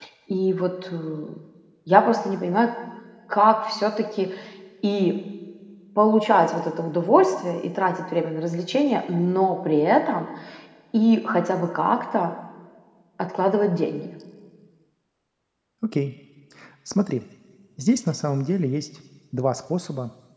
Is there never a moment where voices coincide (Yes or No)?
Yes